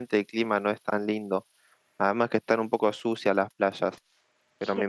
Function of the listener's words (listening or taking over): listening